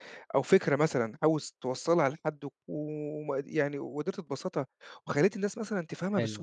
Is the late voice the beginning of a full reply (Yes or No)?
Yes